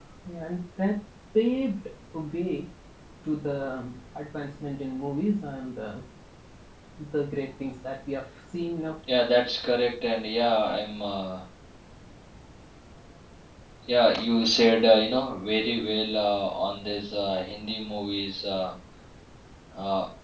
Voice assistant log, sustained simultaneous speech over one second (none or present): none